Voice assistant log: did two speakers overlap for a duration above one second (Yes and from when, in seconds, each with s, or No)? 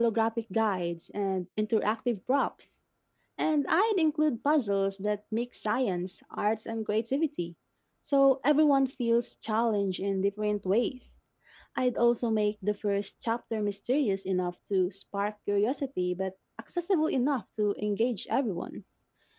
No